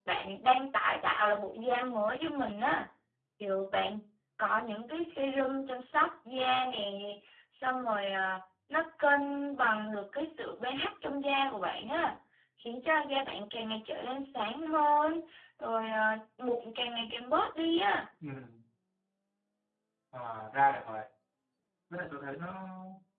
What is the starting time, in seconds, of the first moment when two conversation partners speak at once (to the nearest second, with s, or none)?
none